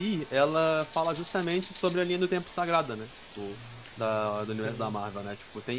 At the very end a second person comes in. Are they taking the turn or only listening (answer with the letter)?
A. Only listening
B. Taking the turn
A